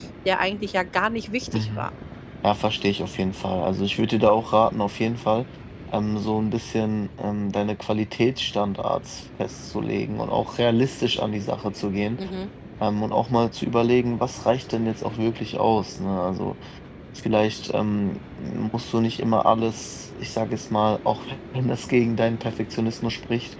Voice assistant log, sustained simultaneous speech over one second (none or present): none